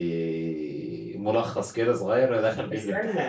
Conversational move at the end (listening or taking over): taking over